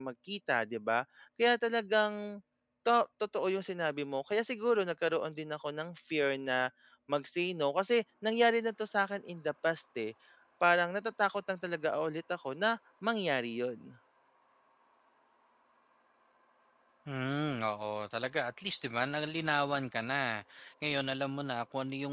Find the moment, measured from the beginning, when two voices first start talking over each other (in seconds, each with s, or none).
none